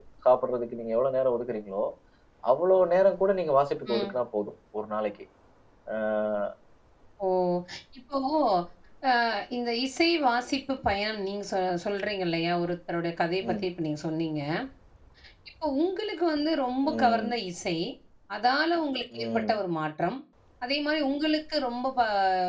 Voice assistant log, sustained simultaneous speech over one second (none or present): none